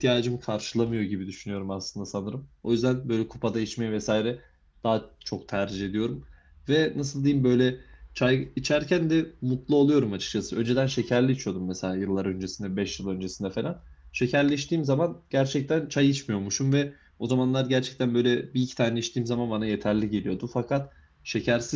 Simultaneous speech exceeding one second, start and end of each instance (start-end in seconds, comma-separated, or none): none